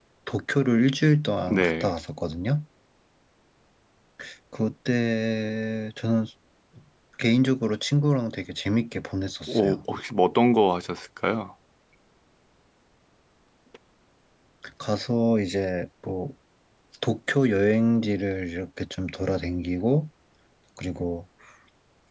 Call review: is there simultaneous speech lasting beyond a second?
No

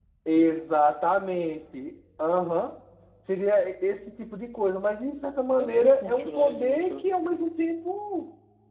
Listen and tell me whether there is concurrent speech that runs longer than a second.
Yes, from 5.5 s

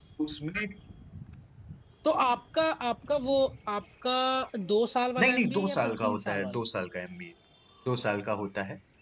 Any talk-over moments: Yes, from 5.2 s

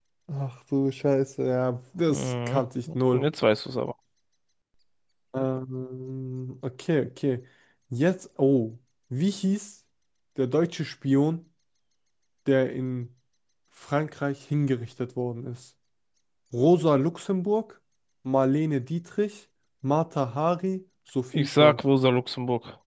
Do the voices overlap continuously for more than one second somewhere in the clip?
No

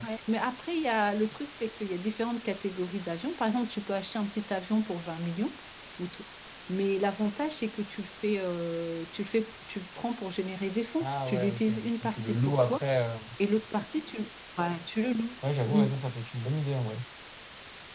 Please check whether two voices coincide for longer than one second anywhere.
Yes, from 11.0 s

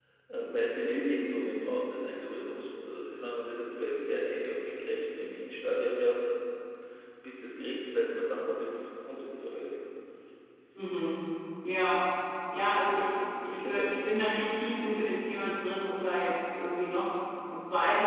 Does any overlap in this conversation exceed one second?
Yes, from 12.7 s

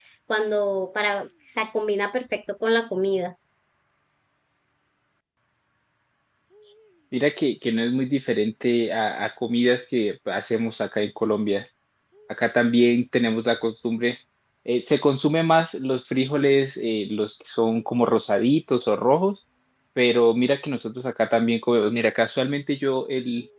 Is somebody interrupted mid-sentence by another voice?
No

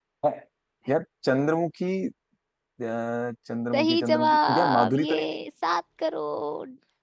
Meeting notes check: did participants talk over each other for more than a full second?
Yes, from 3.7 s

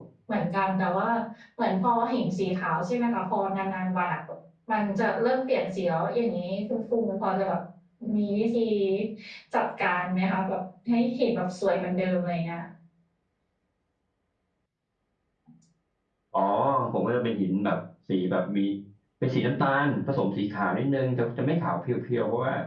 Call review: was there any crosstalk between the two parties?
No

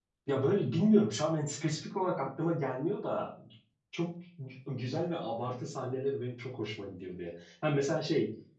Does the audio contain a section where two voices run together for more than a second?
No

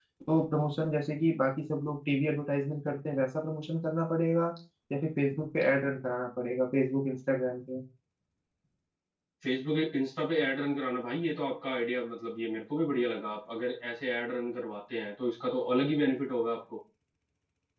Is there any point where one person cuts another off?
No

